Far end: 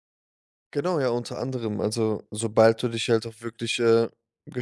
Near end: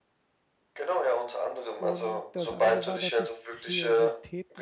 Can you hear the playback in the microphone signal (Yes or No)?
Yes